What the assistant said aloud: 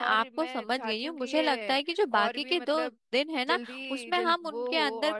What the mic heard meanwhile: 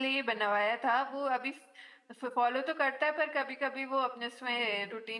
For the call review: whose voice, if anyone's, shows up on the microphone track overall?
user only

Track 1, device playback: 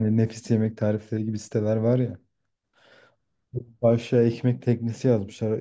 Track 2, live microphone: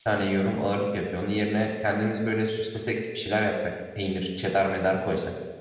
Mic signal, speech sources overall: user only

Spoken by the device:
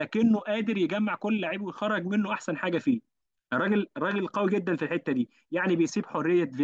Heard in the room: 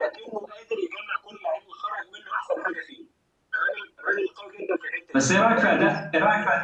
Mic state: both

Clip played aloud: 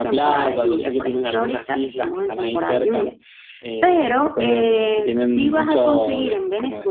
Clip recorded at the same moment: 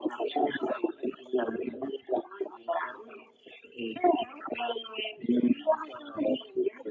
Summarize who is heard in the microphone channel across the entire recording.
echo only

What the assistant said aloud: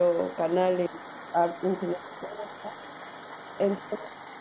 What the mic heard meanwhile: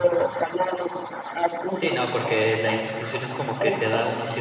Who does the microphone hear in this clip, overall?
both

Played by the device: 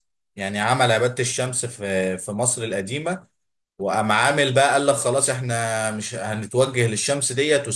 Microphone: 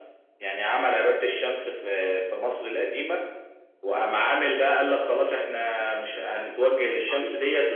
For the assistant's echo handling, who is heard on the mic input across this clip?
both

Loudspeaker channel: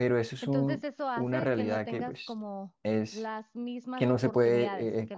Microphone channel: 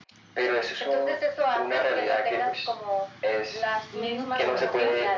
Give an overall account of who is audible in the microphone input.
both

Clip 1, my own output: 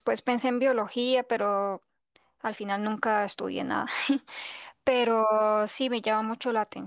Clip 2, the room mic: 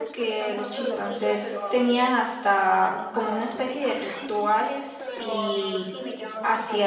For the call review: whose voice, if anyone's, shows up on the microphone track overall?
both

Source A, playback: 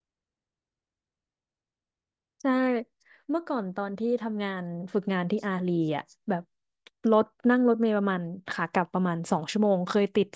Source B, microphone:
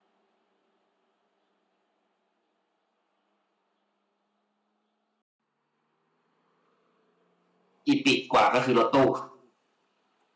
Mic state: user only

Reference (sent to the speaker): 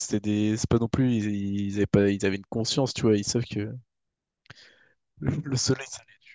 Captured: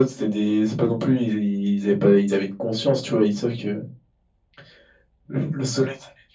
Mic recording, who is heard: echo only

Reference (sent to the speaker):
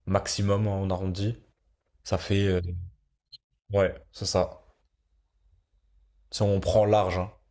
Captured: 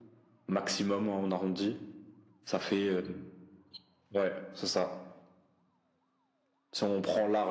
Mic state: echo only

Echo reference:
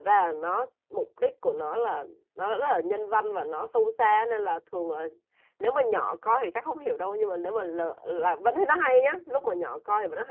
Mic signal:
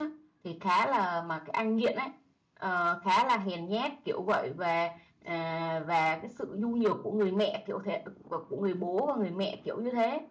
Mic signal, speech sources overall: user only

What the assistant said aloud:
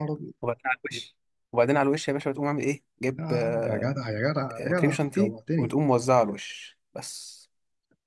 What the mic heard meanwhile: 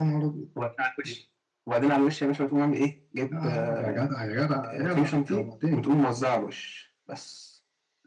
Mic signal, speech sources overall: echo only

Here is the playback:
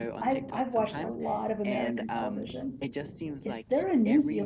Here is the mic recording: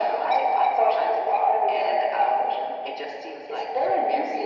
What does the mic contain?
echo only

